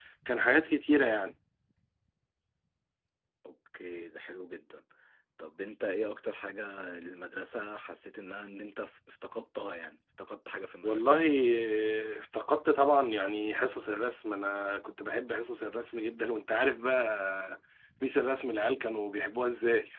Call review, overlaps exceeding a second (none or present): none